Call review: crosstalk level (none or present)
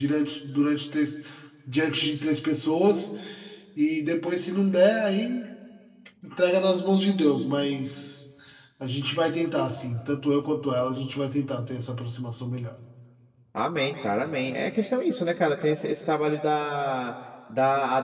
none